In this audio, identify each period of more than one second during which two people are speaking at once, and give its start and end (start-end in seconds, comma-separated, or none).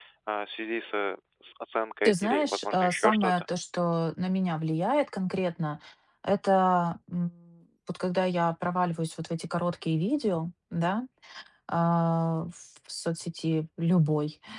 2.0-3.5